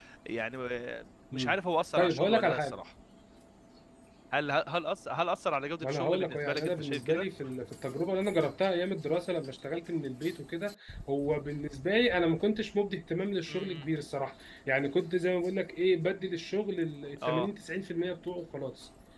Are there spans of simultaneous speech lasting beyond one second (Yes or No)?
Yes